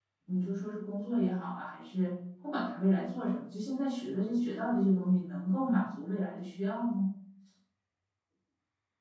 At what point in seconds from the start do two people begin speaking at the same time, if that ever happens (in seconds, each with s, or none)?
none